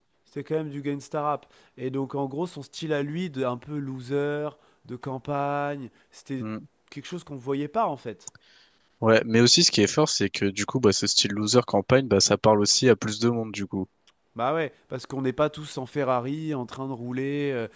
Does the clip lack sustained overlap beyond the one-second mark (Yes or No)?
Yes